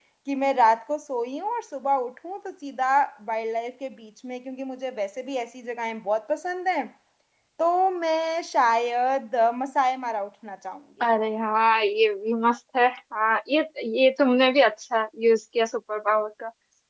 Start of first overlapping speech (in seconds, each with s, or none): none